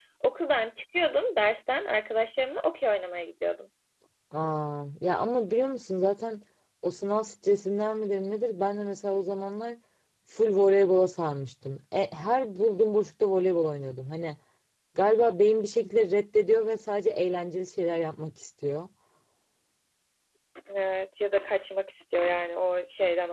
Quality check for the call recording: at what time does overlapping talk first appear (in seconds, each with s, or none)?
none